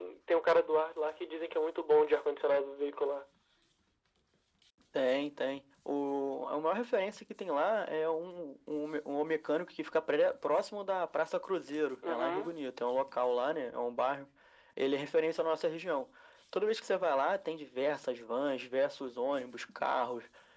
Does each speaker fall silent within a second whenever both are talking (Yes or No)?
Yes